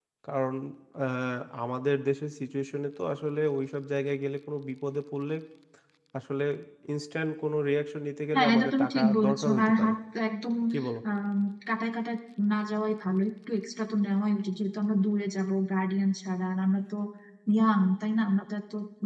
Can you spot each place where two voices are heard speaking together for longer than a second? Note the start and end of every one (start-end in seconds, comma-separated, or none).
8.3-9.9